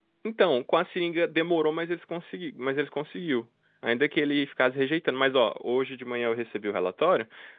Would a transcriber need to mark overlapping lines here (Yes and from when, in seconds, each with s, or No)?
No